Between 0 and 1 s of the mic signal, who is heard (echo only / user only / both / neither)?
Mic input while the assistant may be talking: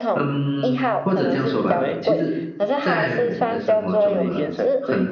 both